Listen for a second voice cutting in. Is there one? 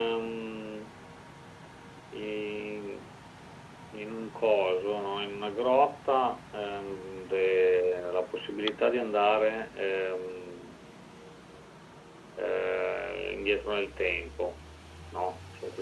No

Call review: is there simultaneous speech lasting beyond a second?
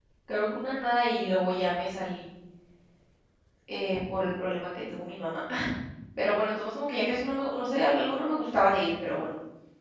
No

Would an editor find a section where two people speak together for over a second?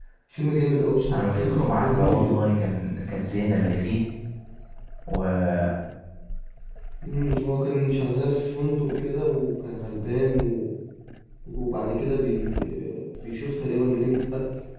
Yes, from 1.1 s

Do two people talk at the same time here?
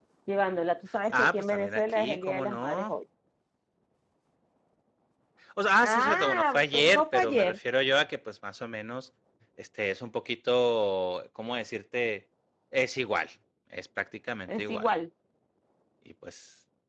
Yes, from 1.1 s

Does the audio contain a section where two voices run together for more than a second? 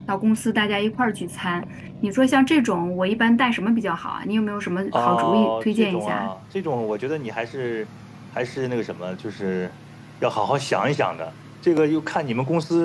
Yes, from 4.9 s

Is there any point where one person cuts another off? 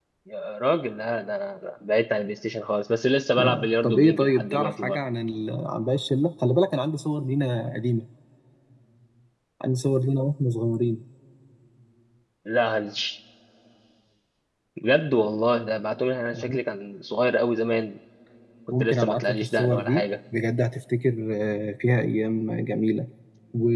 Yes, from 3.4 s

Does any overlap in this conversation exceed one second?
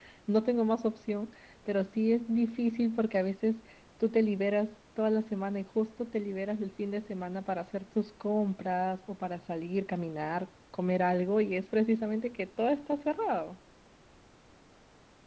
No

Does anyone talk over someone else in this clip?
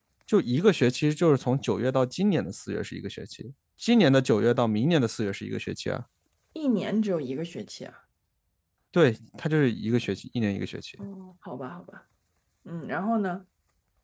No

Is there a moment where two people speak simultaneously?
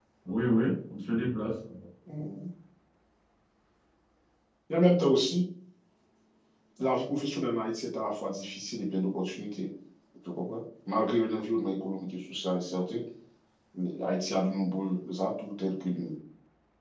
No

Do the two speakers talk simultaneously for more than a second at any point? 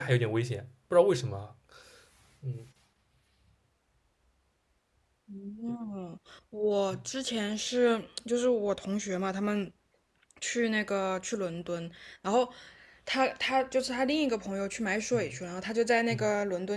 No

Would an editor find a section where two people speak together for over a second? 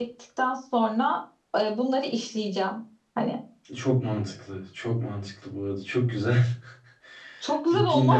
No

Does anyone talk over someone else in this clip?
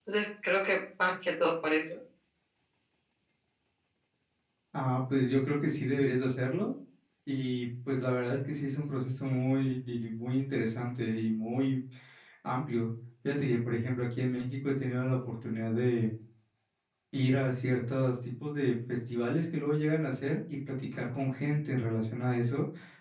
No

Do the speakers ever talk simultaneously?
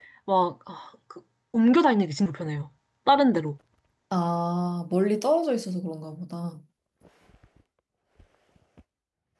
No

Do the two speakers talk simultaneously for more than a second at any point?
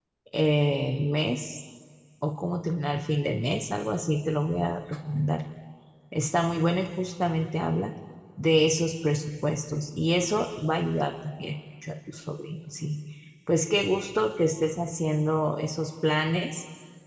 No

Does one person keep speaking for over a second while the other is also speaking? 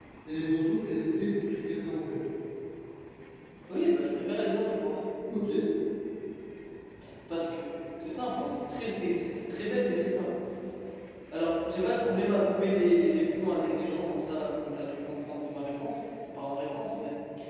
No

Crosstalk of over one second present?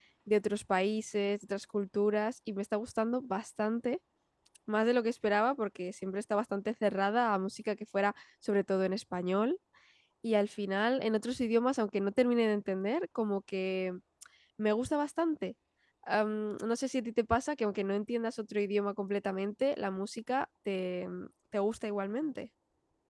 No

